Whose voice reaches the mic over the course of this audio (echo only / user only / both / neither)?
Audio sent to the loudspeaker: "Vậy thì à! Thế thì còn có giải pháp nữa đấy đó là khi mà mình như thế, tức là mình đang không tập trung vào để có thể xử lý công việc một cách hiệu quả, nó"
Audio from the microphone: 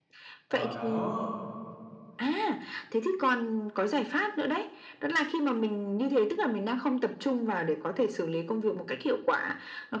both